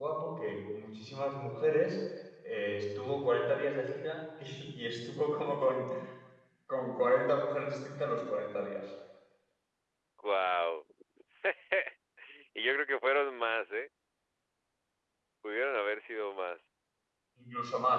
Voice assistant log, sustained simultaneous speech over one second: none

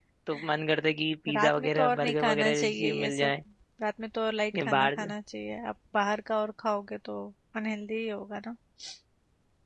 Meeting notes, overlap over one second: present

